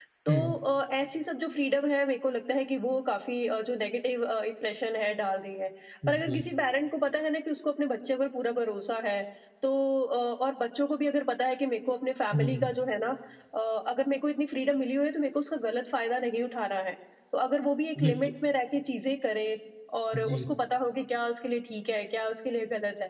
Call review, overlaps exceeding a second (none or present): none